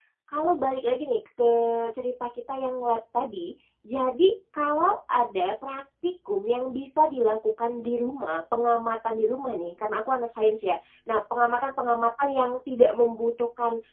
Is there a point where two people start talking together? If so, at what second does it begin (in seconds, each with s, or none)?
none